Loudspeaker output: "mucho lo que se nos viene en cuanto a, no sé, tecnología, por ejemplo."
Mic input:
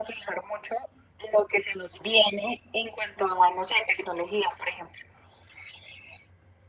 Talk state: echo only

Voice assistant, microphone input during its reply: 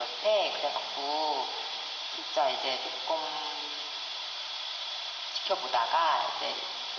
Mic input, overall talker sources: echo only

